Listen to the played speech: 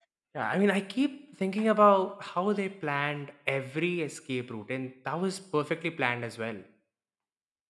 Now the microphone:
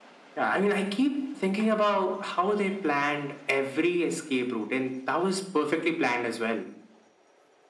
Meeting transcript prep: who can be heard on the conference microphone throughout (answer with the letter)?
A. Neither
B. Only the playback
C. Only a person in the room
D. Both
B